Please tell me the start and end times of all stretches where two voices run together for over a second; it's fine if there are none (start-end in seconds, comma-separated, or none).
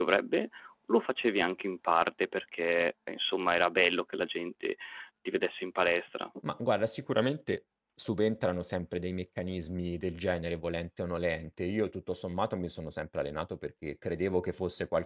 none